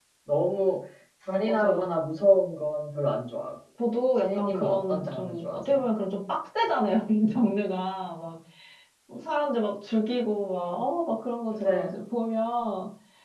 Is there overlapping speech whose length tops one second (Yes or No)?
Yes